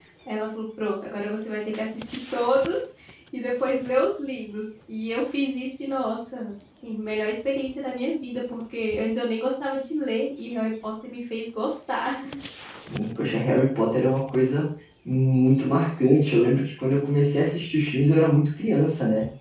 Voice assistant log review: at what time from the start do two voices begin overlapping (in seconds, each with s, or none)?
none